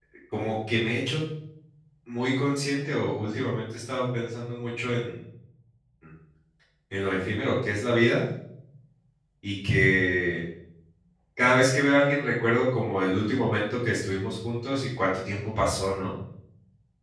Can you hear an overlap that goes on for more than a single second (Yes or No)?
No